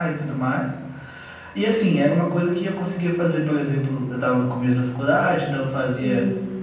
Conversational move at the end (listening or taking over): listening